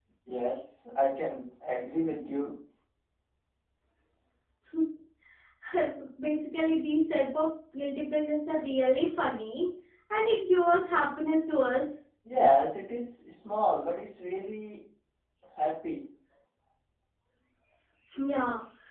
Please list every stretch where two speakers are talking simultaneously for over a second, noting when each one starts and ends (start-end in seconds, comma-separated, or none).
none